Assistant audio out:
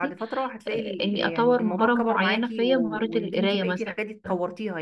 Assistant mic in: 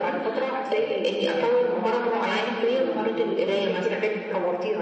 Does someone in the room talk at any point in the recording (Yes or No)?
No